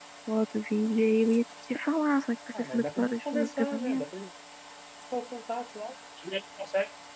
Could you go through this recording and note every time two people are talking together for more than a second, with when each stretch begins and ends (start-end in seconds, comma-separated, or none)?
2.6-4.0